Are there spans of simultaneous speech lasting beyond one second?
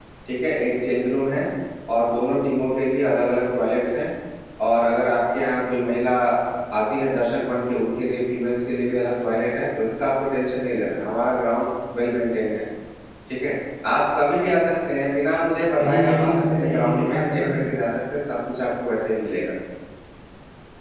Yes, from 15.8 s

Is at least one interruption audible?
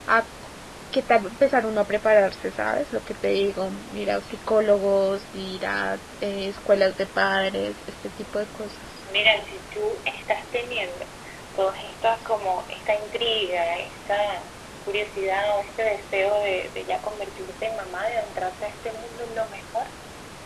No

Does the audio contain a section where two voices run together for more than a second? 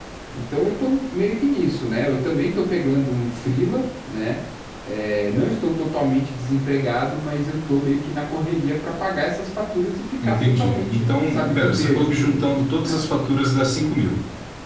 Yes, from 10.2 s

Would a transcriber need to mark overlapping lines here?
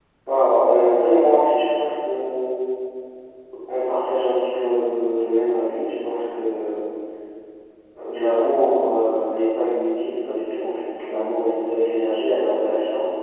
No

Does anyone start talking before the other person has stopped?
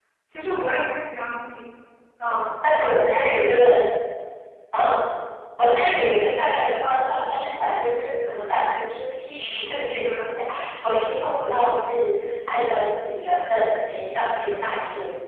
No

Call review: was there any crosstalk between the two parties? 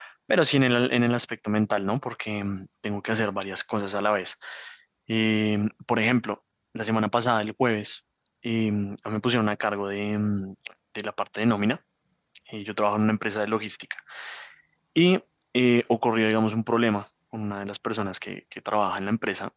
No

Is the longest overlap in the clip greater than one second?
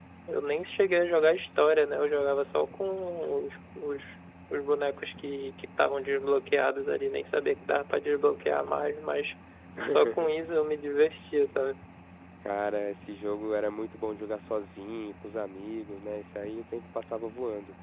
No

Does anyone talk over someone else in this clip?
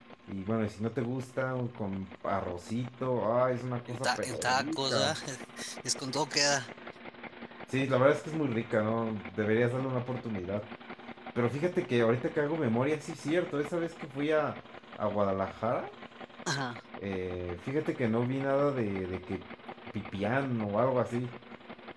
Yes, from 3.9 s

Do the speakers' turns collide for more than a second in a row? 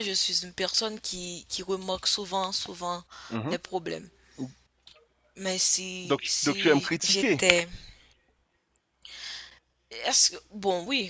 Yes, from 6.0 s

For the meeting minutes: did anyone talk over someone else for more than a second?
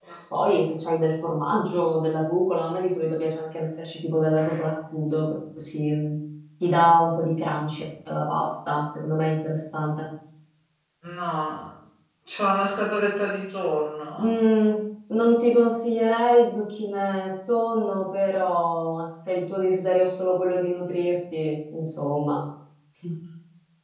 No

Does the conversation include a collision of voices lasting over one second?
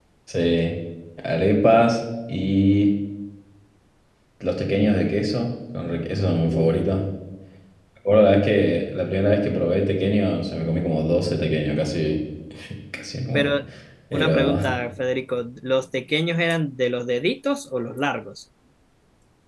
No

